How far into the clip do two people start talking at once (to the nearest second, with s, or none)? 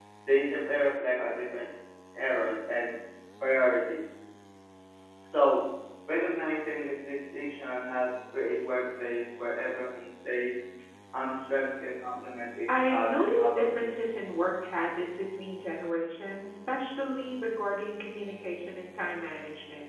13 s